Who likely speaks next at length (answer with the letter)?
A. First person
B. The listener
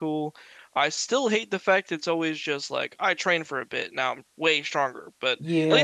B